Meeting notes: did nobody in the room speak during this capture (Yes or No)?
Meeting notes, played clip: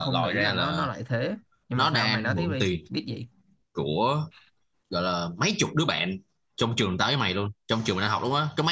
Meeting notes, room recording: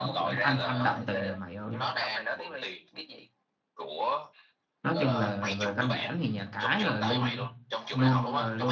No